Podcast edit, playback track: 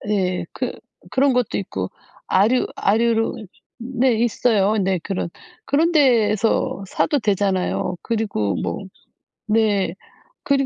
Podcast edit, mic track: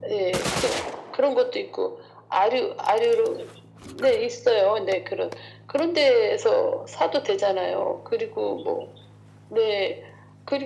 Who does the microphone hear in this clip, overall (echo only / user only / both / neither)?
echo only